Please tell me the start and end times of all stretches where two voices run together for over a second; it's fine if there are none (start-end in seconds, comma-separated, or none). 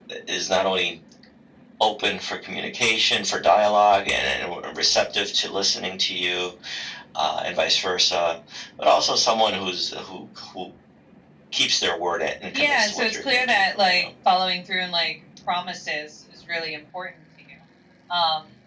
12.5-14.0